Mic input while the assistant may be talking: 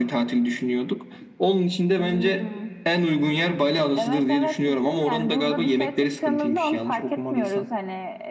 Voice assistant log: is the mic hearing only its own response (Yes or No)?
Yes